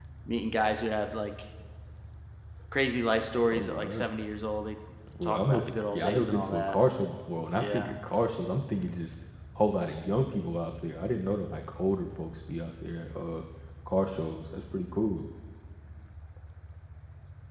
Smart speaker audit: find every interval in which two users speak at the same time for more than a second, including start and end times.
5.2-6.7

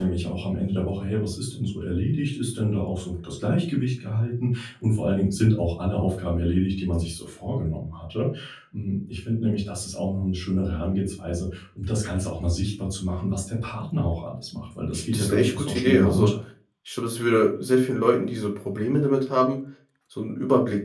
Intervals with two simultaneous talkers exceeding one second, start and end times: 14.9-16.3

